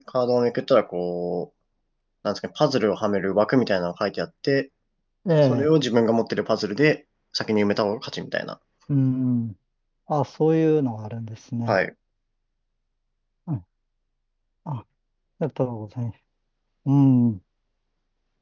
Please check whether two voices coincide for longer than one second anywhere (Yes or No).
No